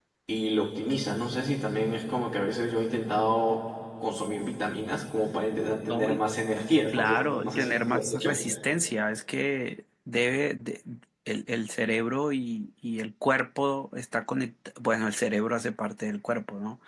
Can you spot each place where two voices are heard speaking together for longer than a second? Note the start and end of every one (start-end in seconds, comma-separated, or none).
6.9-8.4